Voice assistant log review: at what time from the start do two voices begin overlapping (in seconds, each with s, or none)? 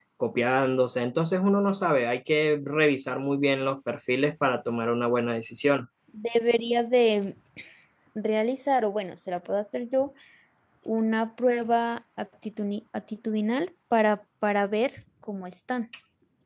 none